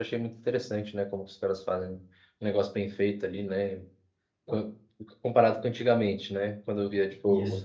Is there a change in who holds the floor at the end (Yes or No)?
No